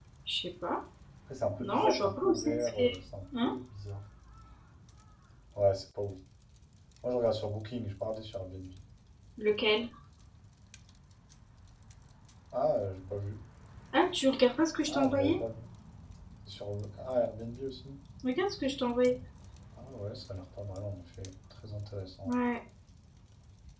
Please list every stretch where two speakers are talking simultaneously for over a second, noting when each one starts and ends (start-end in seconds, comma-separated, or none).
1.6-2.9